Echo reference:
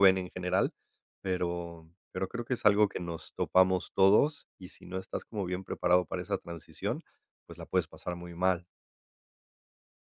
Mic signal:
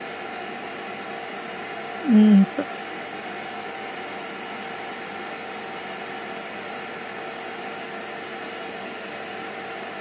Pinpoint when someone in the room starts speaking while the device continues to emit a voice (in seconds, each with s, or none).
2.0 s